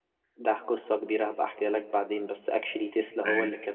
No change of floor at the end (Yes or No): Yes